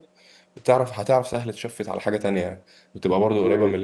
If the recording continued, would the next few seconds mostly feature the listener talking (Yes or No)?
Yes